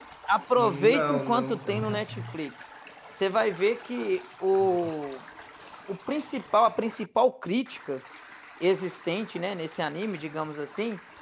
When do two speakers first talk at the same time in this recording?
0.6 s

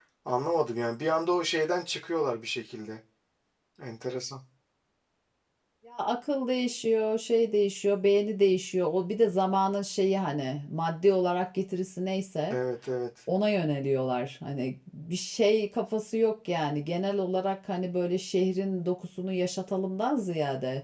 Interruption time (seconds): none

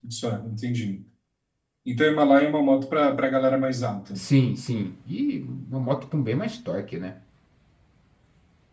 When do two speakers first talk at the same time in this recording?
none

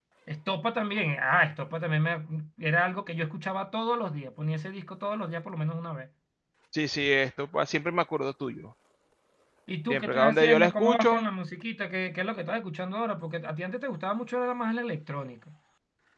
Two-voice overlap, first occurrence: 9.9 s

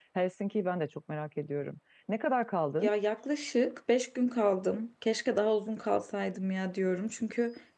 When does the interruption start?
none

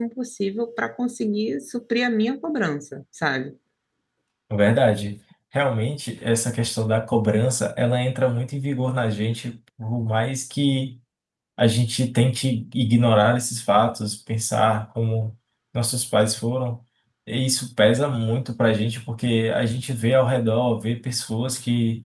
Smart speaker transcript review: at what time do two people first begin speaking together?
none

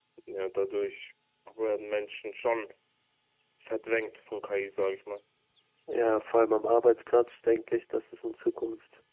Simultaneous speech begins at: none

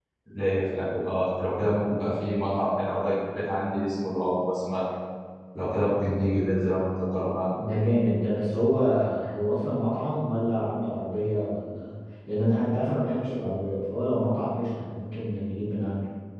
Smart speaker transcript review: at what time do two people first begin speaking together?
none

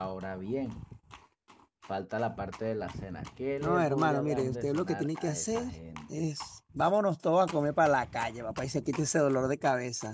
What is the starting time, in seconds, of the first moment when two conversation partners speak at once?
3.6 s

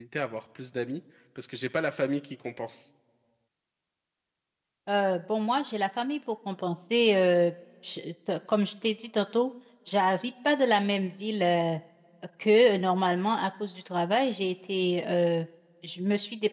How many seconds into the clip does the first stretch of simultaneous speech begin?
none

